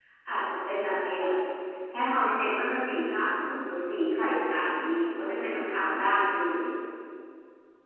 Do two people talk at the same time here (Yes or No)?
No